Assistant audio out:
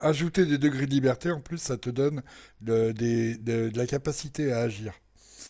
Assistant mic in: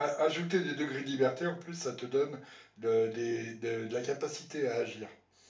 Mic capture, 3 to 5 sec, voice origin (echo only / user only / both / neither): echo only